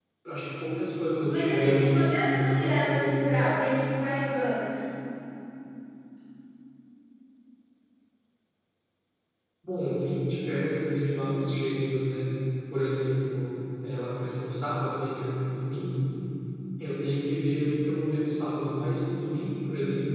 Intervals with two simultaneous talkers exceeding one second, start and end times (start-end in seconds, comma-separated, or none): 1.3-3.2